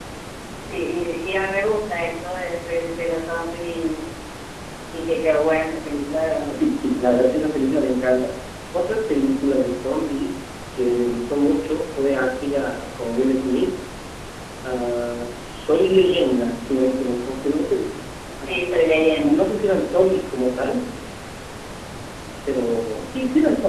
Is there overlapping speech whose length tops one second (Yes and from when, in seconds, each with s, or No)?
No